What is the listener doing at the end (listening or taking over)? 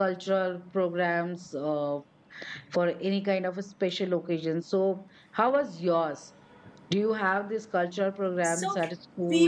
taking over